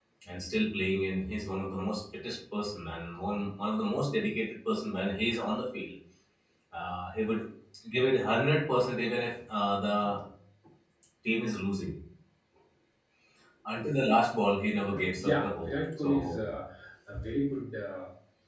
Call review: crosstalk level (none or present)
present